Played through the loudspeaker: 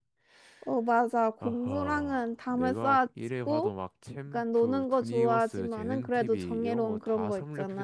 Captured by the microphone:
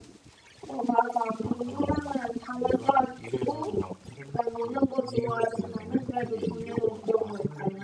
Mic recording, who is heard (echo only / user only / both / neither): echo only